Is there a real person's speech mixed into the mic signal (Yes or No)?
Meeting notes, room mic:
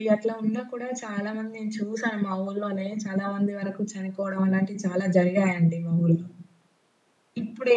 No